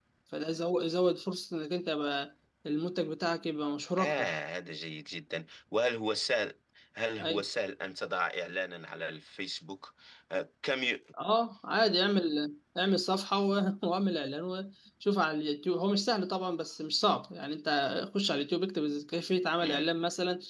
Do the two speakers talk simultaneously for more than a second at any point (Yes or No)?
No